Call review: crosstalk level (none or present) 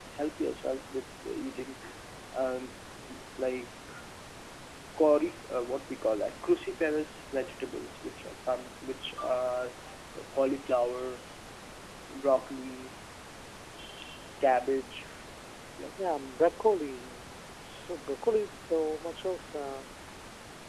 none